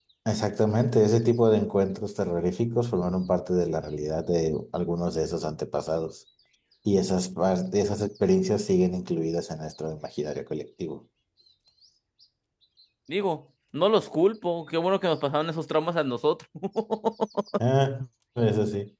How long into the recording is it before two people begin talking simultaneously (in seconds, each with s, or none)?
none